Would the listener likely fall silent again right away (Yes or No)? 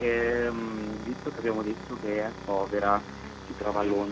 Yes